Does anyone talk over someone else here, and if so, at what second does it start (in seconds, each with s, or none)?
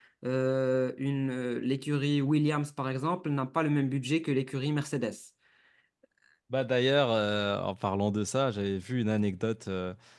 none